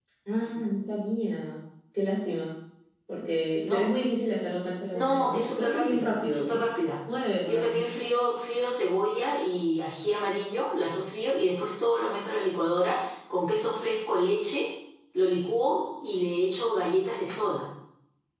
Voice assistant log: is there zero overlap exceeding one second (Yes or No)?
No